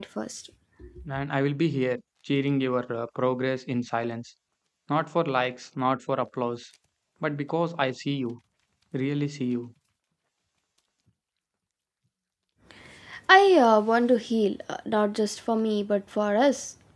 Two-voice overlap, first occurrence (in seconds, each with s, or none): none